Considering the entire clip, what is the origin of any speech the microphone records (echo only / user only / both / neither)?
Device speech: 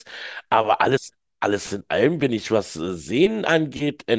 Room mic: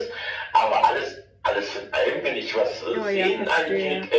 both